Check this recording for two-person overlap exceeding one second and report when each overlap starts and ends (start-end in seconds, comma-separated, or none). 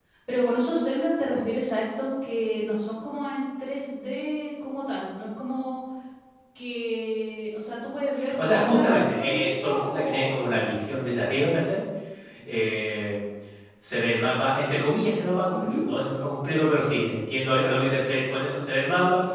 8.5-10.7